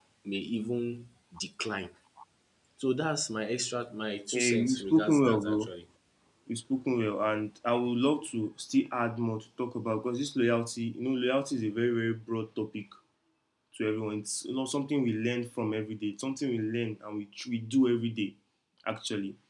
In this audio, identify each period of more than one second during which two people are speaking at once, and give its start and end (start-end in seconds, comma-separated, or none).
4.3-5.7